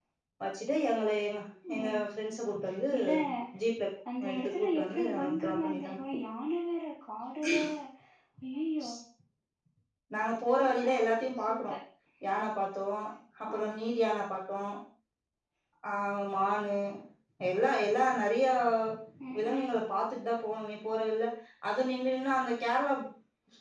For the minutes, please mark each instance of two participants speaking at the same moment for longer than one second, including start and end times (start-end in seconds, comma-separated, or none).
4.3-5.7